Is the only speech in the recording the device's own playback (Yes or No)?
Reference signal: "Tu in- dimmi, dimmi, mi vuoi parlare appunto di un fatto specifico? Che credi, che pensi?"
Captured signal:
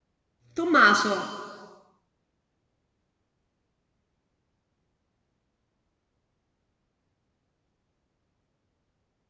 No